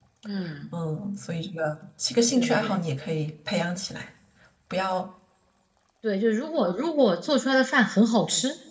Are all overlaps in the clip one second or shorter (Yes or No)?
Yes